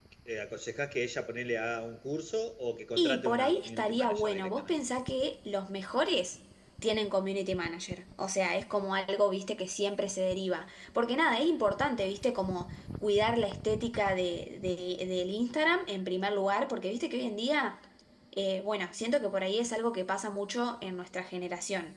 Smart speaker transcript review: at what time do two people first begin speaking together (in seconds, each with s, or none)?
3.0 s